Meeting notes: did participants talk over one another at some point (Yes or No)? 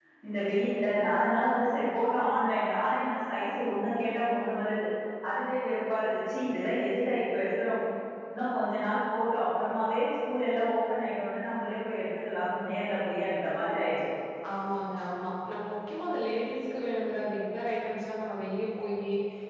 No